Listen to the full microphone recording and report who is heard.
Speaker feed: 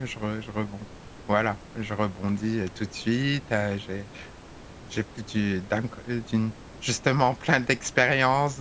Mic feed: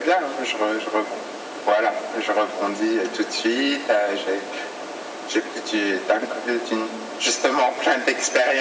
echo only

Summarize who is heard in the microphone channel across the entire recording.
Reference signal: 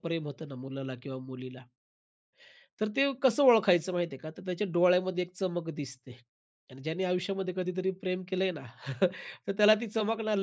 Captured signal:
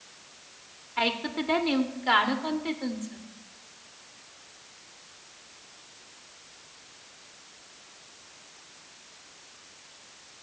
user only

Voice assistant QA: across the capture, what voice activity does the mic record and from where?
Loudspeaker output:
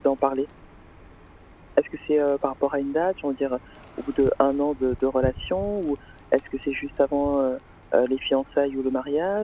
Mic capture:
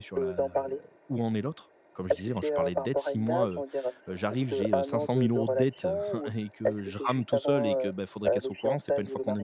both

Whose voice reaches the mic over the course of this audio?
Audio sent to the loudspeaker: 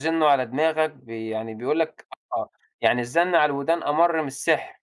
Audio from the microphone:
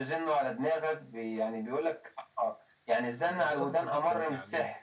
both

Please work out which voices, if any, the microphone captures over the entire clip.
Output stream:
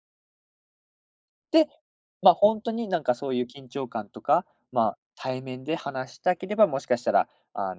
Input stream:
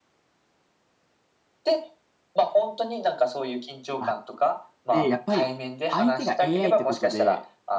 both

